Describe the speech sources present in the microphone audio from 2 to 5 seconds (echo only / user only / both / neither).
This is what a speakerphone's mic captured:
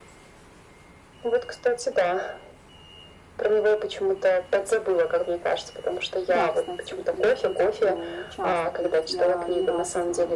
echo only